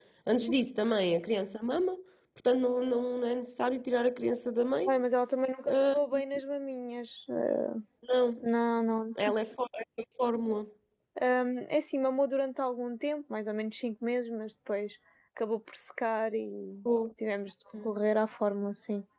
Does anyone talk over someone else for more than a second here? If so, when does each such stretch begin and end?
none

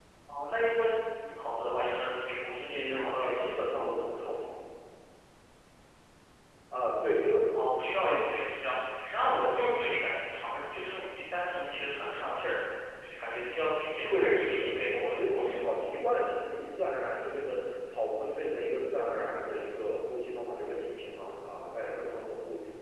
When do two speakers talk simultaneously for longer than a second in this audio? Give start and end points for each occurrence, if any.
2.6-3.9, 14.1-15.6

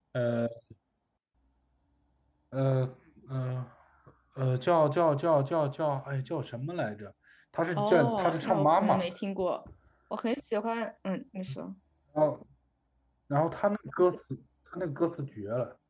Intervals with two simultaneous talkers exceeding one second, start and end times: 7.8-9.1

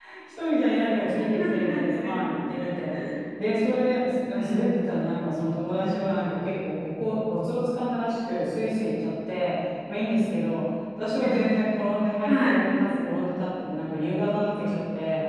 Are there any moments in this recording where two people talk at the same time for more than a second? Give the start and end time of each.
1.4-2.9

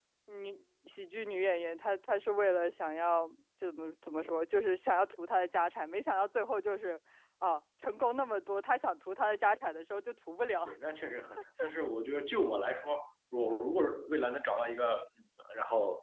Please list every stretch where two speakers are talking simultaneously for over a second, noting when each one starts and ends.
none

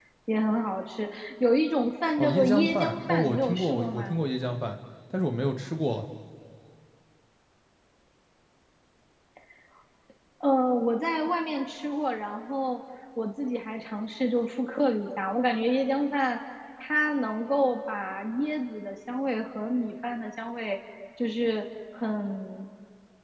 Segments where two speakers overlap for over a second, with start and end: 2.2-4.2

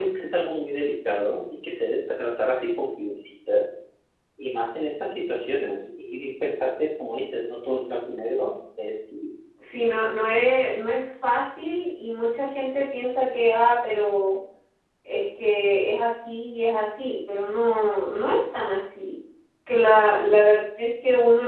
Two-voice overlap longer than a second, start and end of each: none

